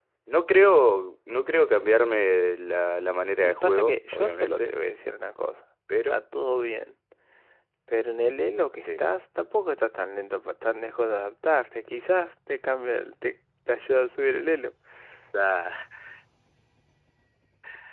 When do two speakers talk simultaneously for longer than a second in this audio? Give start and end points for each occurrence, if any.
3.4-4.7

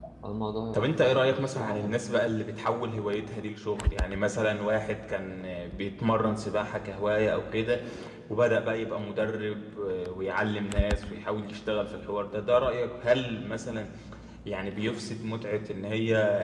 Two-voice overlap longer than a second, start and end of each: 0.7-1.9

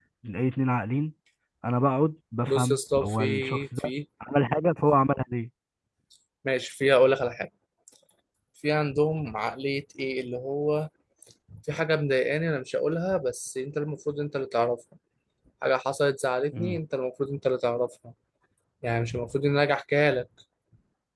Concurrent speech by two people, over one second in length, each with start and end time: 2.5-3.9

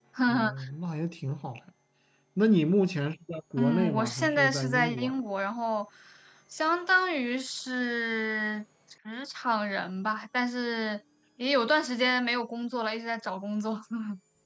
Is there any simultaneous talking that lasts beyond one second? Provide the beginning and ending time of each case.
3.6-5.2

